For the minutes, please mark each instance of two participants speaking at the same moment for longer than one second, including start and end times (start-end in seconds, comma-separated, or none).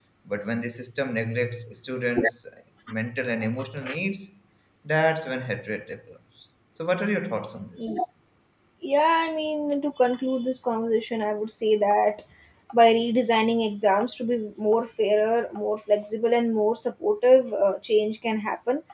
none